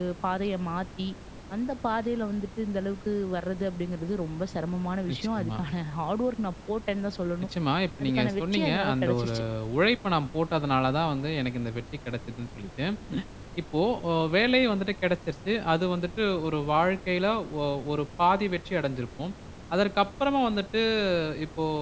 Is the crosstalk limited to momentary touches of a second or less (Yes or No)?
No